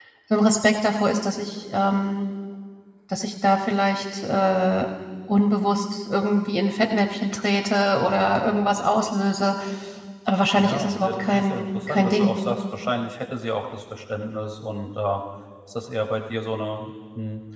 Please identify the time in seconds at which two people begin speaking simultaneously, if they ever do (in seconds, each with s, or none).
10.6 s